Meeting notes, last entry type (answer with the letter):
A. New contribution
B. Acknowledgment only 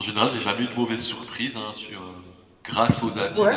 A